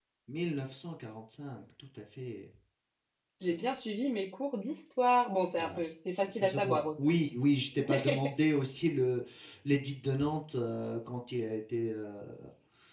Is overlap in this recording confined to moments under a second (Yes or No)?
No